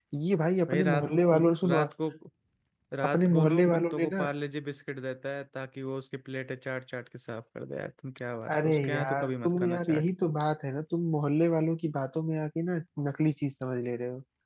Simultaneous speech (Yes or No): Yes